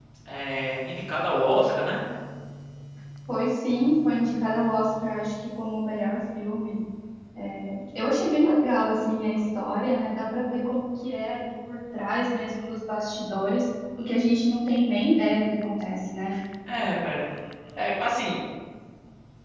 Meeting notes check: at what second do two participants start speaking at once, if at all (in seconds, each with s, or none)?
none